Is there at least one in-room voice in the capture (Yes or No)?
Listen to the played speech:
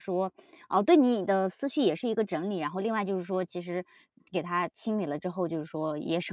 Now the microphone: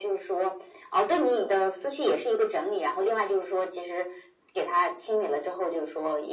No